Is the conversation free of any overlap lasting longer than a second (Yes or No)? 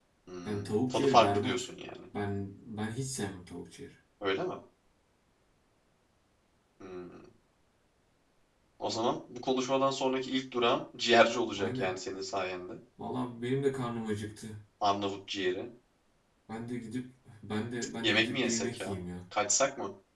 No